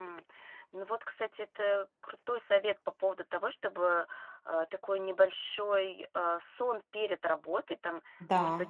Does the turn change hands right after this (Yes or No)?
No